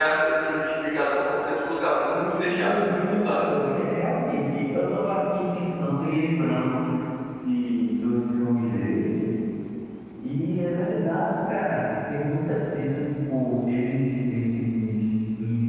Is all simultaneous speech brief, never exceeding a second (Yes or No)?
No